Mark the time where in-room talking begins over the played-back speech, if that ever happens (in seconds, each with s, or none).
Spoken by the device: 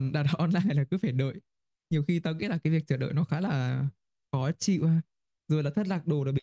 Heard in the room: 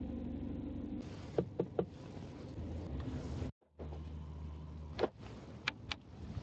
none